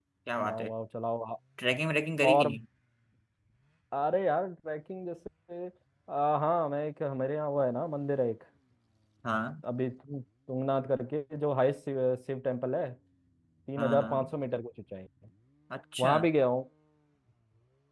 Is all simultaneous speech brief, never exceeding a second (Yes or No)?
Yes